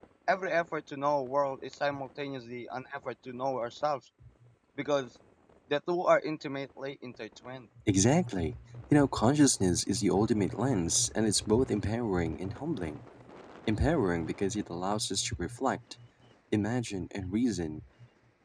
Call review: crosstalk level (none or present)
none